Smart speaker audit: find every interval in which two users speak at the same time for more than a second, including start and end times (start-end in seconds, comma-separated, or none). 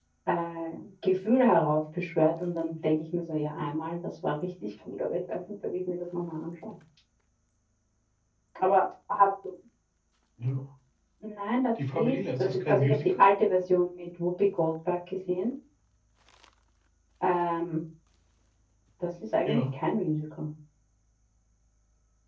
11.8-13.1